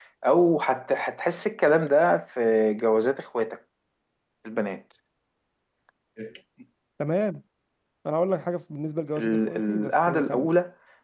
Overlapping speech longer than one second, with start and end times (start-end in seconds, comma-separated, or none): 9.2-10.5